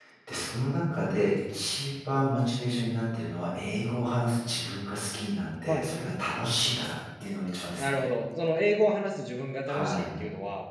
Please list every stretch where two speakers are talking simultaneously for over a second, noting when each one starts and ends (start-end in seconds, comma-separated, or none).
none